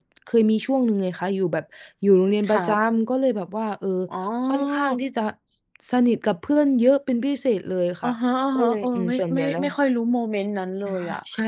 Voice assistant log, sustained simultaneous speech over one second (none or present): present